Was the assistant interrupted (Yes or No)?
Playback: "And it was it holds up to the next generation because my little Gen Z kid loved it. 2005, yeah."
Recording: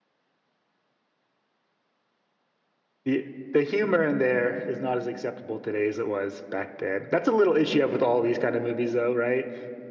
Yes